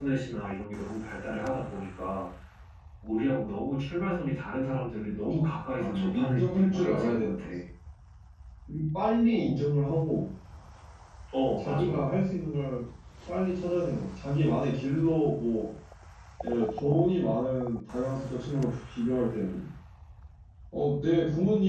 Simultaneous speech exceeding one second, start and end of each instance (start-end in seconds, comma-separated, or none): 5.8-7.4